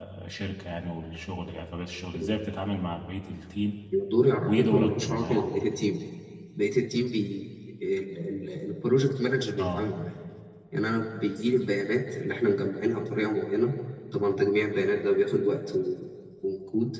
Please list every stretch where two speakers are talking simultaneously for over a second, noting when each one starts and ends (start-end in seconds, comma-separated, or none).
4.5-5.8